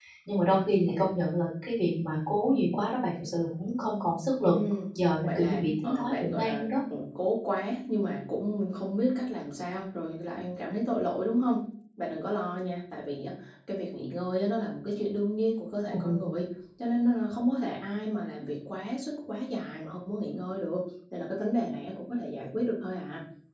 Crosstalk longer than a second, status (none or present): present